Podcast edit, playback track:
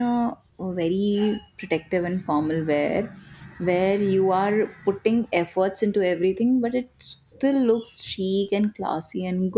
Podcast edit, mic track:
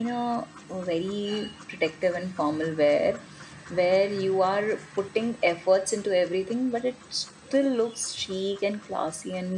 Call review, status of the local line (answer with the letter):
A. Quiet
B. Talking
A